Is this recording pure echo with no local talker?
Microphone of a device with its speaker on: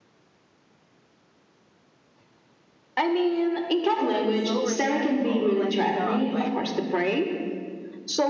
No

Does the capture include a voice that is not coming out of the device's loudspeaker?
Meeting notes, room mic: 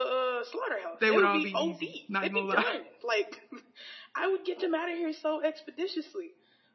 Yes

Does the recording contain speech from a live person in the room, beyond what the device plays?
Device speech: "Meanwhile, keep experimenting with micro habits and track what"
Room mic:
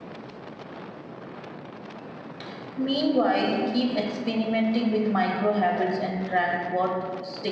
No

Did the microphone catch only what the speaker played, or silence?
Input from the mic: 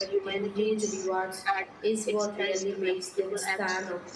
No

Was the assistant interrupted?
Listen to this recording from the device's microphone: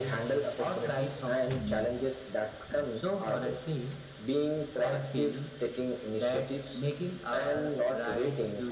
No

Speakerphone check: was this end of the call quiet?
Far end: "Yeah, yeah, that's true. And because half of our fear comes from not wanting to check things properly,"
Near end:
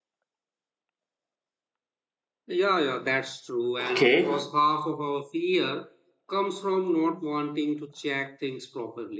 No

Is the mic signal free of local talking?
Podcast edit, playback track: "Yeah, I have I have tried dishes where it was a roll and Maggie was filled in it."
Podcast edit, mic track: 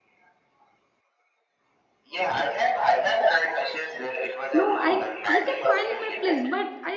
No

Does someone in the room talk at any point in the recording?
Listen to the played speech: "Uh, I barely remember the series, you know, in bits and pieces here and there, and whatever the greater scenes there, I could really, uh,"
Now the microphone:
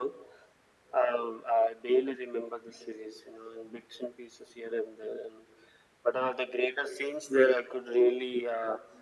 No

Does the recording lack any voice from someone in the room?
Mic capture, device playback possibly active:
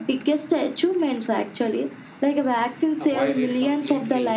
No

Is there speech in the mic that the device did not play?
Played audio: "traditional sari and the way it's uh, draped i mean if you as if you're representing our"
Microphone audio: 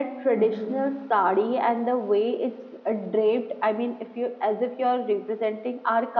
Yes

